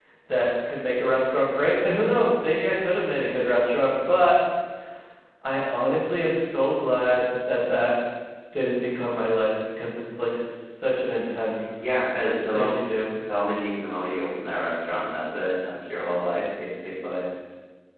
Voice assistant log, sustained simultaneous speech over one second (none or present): none